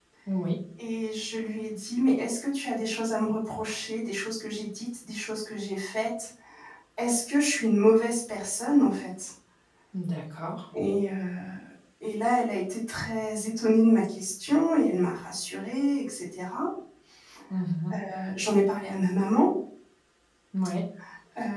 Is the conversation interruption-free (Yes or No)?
Yes